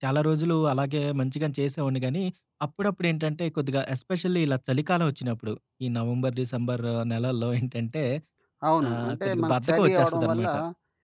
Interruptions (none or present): present